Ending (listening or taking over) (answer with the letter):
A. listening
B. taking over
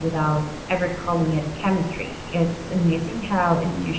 A